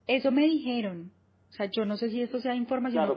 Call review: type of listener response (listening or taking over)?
taking over